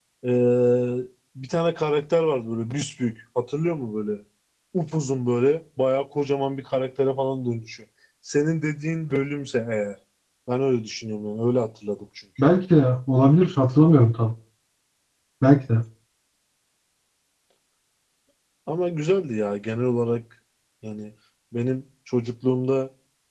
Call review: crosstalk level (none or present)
none